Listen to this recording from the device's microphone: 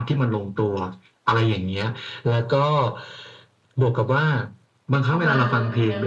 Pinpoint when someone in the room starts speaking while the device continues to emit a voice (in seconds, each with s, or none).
5.1 s